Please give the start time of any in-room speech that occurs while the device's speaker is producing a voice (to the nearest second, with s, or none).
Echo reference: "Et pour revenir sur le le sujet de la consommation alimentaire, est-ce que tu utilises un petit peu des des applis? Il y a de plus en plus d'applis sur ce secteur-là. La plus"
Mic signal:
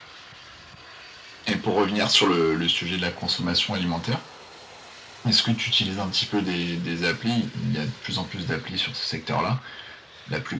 none